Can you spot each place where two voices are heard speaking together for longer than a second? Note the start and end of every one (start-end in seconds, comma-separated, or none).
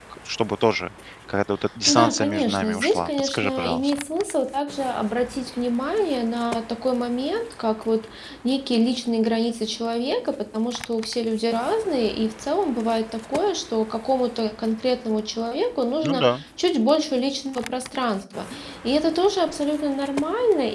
1.9-3.9